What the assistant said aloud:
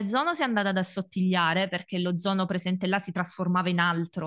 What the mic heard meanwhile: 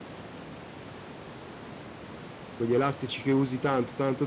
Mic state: user only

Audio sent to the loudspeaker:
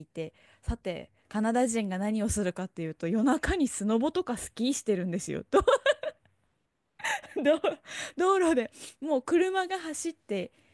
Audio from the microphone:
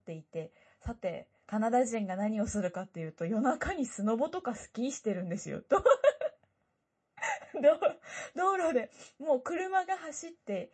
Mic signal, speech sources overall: echo only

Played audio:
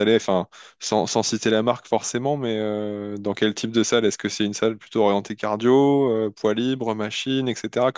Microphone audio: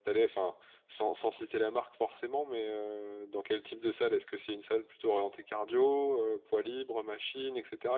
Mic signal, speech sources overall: echo only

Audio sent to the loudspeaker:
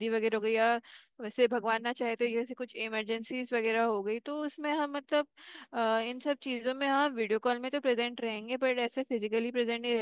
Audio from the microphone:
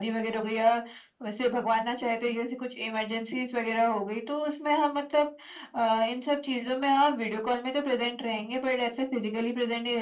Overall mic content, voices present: echo only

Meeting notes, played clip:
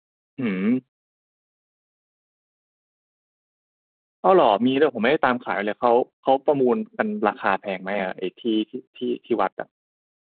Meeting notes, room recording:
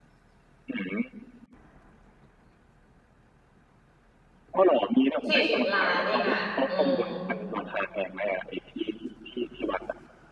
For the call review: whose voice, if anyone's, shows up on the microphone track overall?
both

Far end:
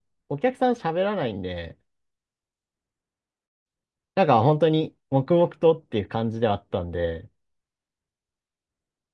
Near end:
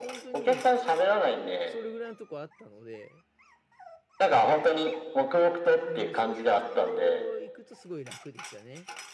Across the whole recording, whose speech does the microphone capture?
both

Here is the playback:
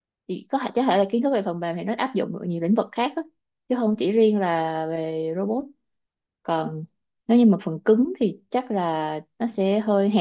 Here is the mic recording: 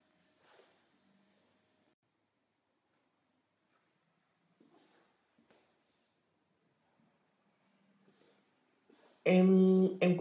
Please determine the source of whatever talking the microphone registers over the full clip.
user only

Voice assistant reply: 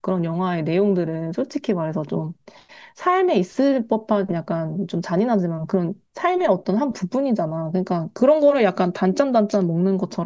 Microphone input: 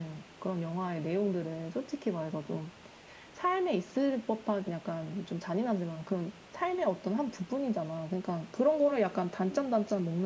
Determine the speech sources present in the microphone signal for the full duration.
echo only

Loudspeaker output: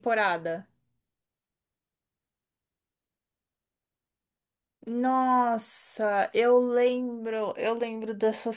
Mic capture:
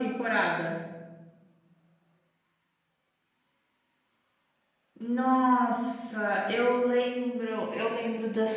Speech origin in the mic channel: echo only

